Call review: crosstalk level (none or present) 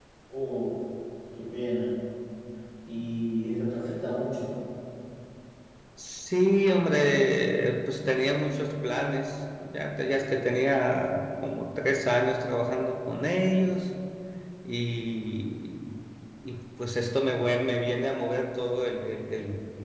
none